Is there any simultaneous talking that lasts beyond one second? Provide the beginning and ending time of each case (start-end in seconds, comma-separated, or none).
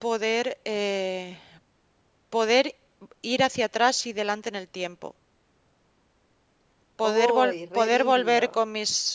7.0-8.6